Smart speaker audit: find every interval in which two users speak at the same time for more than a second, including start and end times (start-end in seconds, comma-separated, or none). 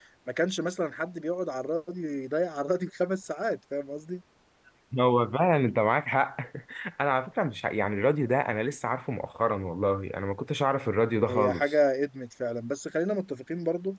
none